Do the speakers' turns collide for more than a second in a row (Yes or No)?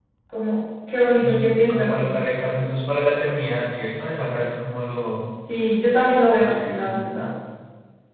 Yes